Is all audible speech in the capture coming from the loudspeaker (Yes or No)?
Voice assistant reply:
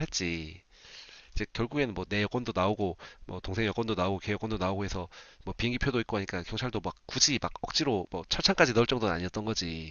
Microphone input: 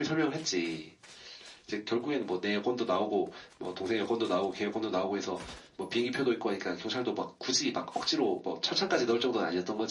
Yes